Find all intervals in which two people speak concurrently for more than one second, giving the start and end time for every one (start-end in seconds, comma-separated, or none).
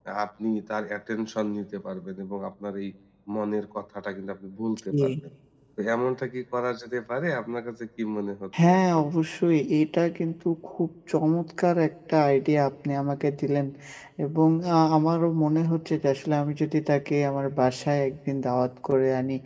none